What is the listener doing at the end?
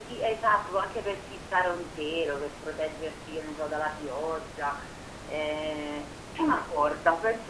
listening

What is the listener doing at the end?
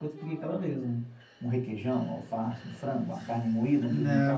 taking over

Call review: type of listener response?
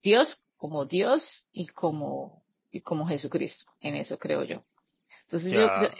listening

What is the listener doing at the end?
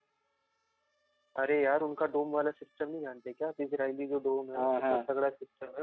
listening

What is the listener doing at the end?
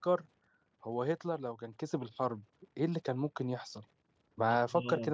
taking over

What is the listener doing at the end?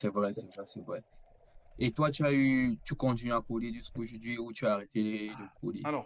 taking over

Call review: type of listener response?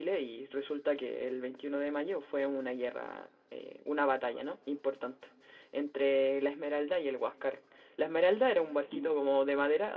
listening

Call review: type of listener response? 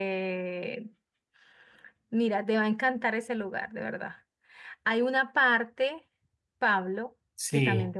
listening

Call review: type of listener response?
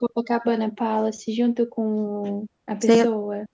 taking over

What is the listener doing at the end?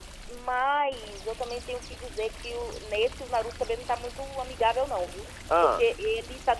listening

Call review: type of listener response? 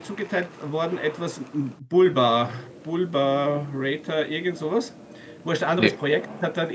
listening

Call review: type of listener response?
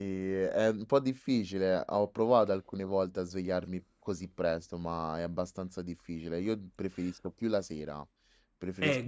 taking over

